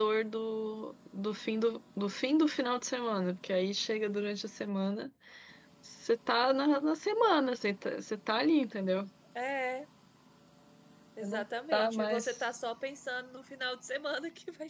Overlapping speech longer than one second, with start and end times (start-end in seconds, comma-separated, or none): 11.2-12.4